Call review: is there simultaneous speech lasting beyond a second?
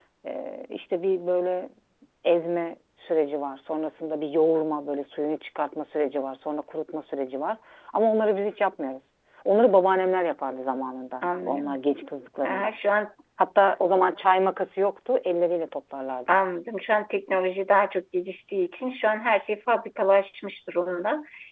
No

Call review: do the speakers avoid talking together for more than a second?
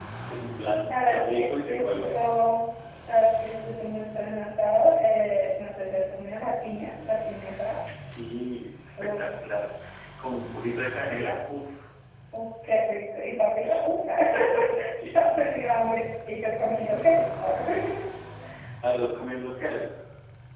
No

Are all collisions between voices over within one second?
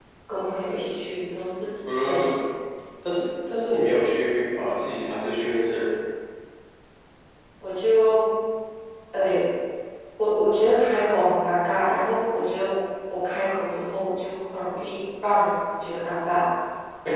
Yes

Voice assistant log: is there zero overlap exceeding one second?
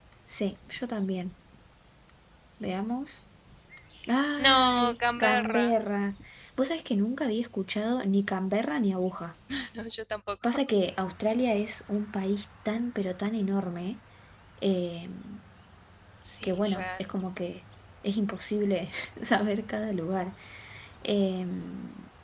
No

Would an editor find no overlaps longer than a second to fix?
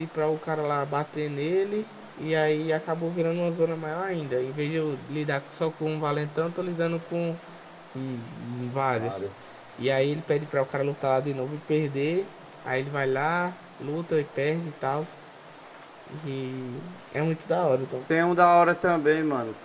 Yes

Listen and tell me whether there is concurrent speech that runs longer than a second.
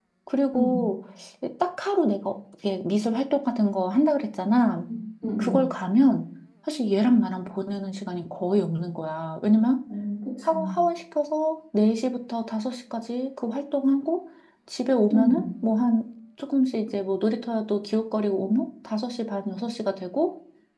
No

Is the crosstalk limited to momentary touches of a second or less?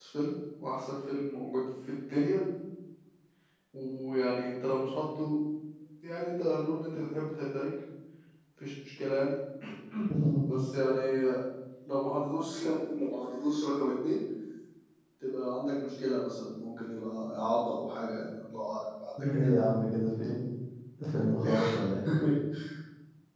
Yes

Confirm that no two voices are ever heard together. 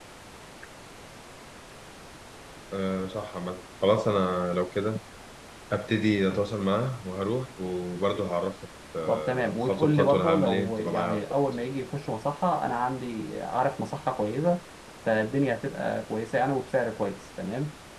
No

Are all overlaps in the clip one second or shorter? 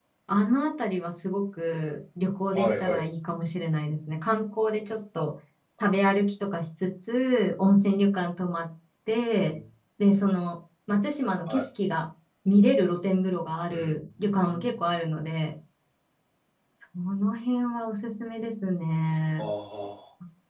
Yes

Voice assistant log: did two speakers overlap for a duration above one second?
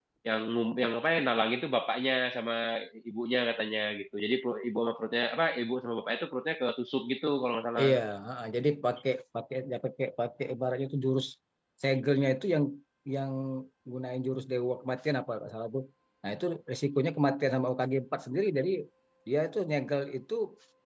No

